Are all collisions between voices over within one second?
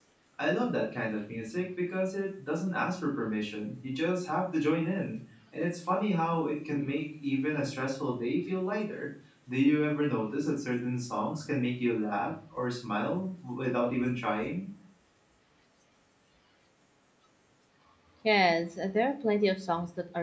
Yes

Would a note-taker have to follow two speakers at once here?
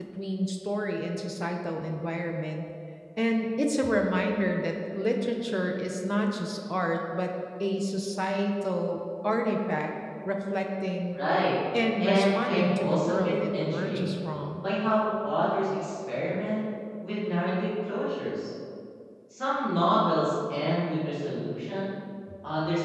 Yes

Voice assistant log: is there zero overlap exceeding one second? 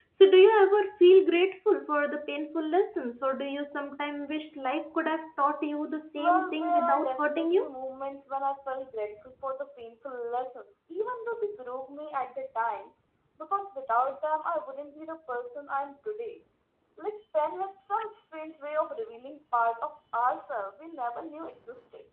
No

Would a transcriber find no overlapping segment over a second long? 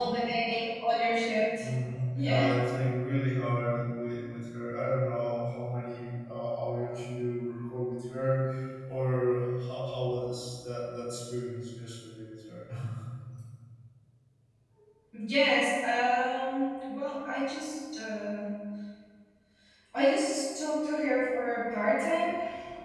Yes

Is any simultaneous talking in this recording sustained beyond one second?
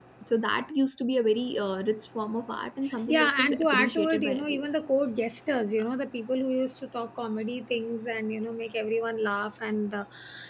Yes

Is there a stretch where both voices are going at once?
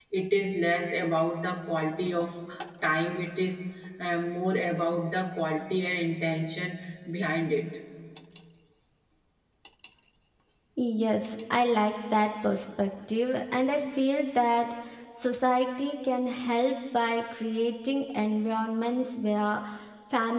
No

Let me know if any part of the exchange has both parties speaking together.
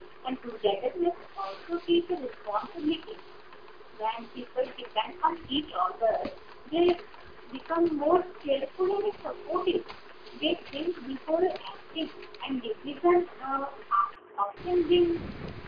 No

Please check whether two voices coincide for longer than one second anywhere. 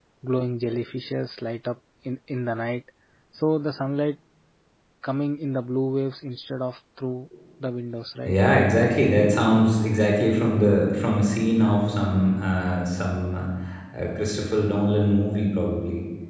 No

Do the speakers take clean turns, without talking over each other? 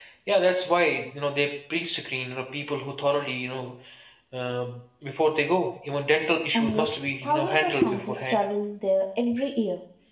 No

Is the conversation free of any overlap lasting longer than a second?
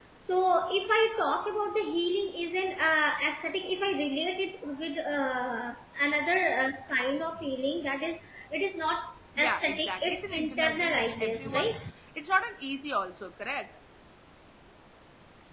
No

